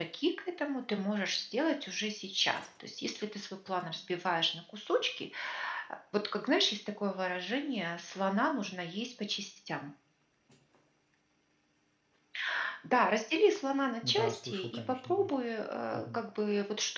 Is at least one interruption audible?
Yes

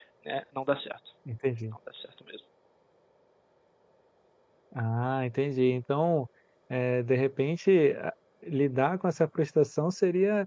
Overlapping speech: No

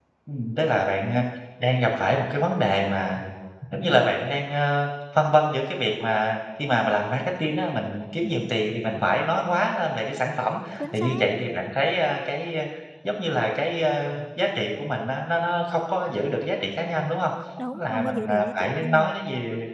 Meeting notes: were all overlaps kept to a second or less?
No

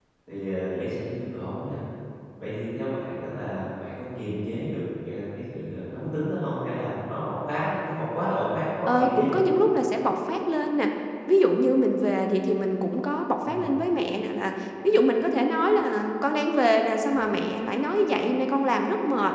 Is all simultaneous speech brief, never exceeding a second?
Yes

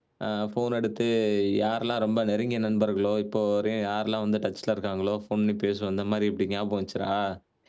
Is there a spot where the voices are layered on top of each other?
No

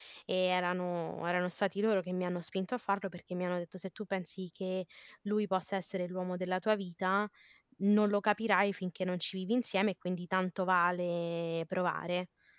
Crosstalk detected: No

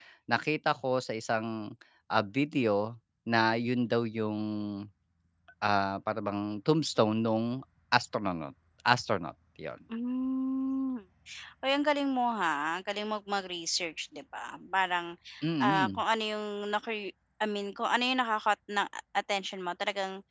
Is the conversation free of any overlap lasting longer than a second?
Yes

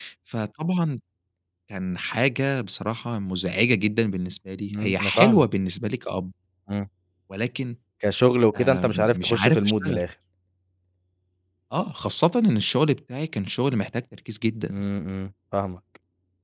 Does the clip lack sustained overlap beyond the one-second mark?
No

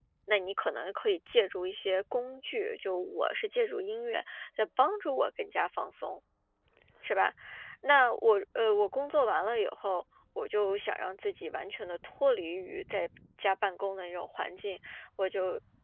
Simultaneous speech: No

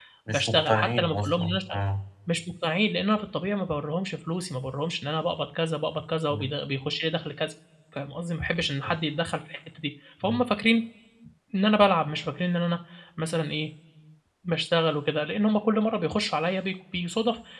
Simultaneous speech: Yes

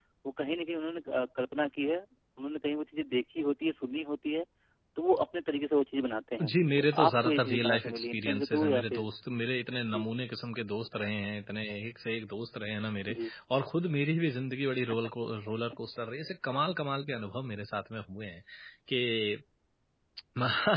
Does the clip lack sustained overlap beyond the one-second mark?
No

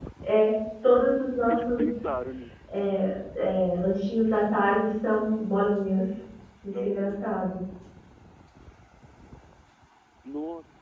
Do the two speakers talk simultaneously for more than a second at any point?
No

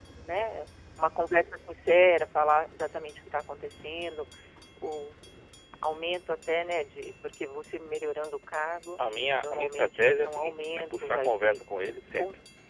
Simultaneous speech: Yes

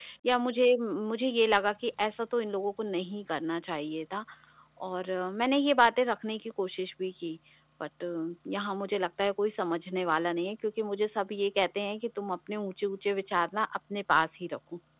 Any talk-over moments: No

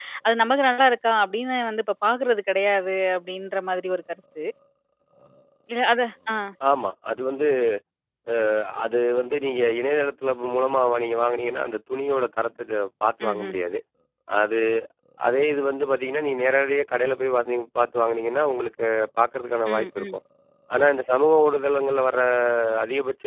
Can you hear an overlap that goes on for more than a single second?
No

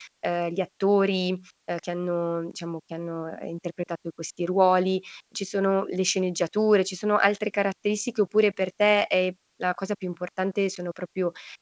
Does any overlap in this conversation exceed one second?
No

